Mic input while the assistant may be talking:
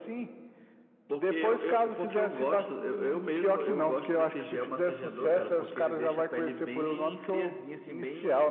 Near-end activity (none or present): none